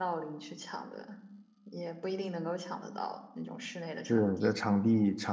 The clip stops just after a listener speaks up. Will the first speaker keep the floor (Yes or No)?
No